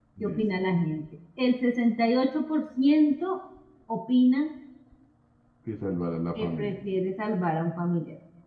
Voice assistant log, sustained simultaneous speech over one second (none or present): none